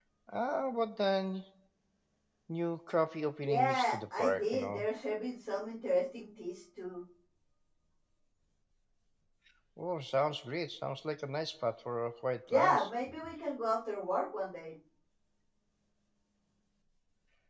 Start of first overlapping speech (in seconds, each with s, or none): 3.5 s